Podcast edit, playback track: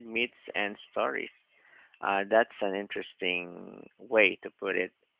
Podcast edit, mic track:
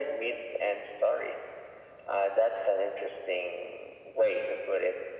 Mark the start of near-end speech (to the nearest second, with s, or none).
none